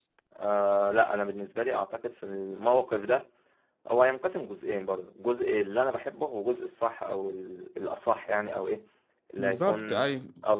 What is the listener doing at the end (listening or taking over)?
listening